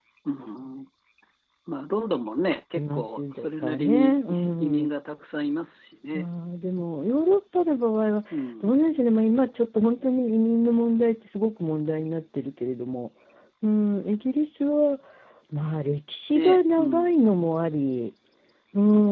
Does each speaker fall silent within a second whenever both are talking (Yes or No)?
No